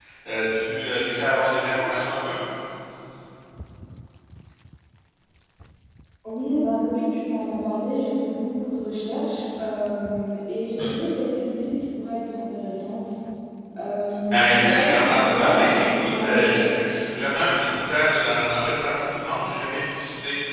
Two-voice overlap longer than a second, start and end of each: 14.3-16.8

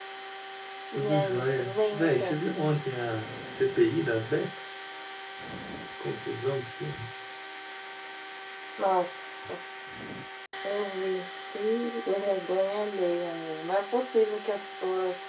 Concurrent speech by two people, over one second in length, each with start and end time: 0.9-2.4

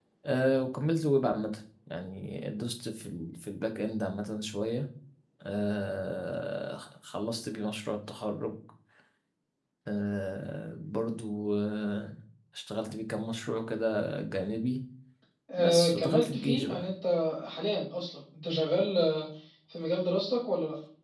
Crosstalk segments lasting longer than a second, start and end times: 15.6-16.9

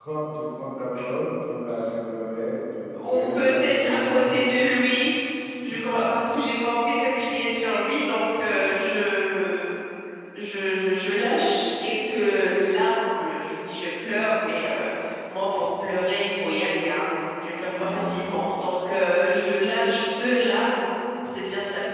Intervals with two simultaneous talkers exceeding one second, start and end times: 3.1-4.4

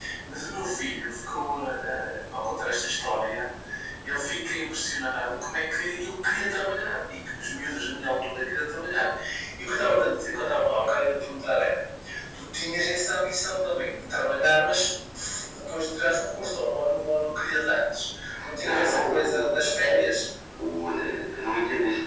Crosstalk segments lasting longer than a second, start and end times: 18.6-20.1

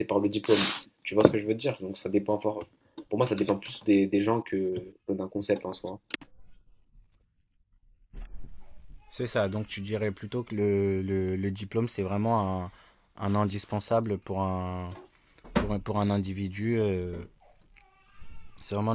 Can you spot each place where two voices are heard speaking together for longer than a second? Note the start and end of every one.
none

